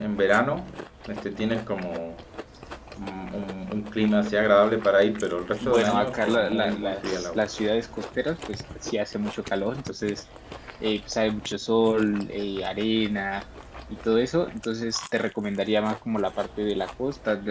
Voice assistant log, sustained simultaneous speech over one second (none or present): present